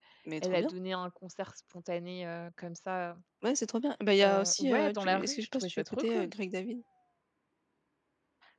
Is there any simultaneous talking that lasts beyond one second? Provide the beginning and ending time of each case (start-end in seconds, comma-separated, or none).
4.2-6.3